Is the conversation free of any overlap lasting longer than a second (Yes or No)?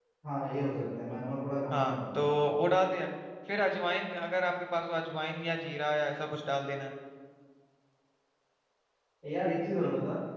Yes